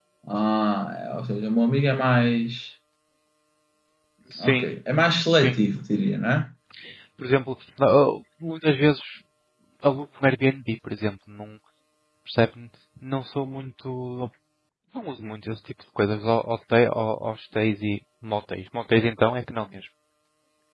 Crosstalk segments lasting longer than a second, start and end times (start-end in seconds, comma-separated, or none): none